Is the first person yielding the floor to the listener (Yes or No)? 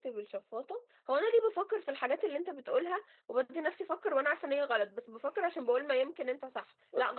No